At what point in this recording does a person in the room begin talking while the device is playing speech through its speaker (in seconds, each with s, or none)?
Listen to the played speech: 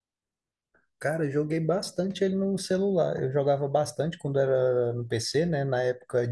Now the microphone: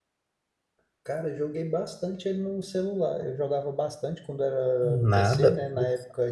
4.8 s